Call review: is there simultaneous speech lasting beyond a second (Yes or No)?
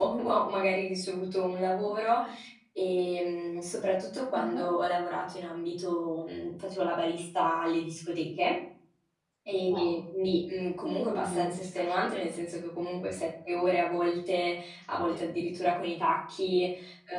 Yes